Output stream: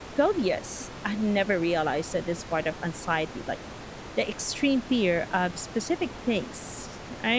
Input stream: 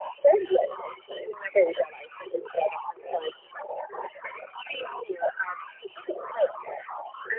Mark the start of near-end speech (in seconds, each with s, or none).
none